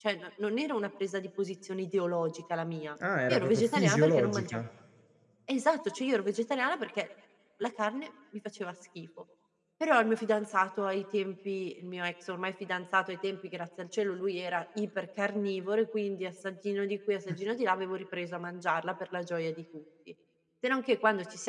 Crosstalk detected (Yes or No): Yes